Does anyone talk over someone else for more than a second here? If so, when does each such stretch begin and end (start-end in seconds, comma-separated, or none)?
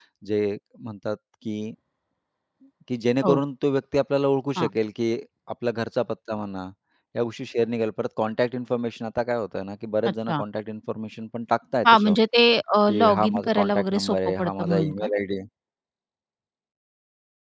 13.0-15.1